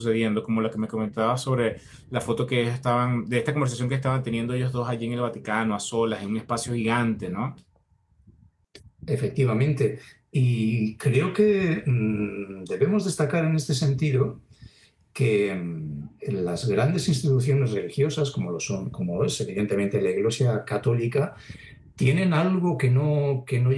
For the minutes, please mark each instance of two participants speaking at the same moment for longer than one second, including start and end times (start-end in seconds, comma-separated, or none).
none